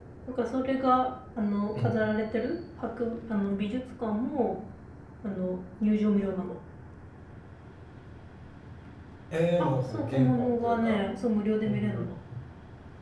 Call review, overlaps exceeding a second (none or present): present